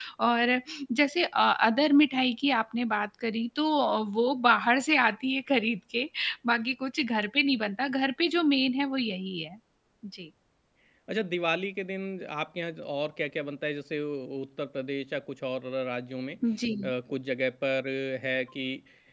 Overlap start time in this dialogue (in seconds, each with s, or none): none